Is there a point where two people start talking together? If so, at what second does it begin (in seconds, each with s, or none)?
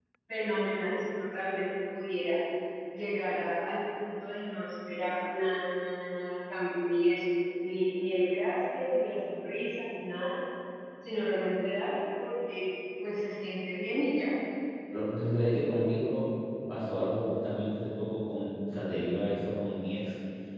none